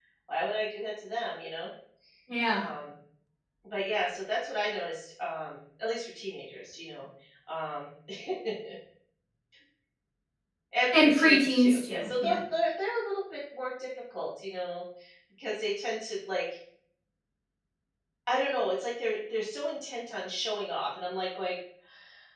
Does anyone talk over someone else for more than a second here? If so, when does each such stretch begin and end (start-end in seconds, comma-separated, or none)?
10.9-12.4